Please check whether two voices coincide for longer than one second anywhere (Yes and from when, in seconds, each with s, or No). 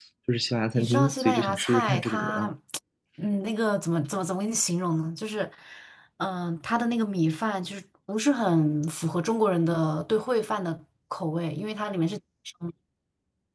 Yes, from 0.8 s